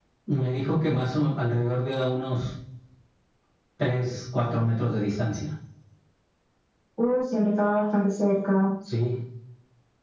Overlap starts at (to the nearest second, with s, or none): none